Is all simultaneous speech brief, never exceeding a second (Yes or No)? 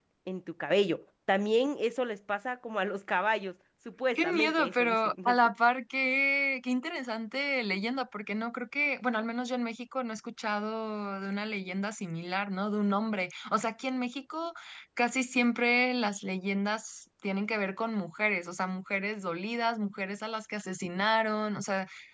No